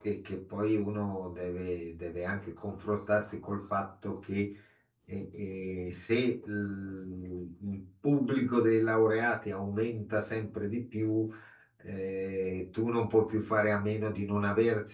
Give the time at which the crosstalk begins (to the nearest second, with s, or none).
none